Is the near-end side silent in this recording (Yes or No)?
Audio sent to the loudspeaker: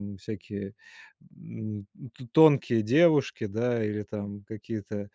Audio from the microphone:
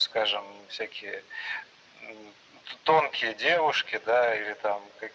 Yes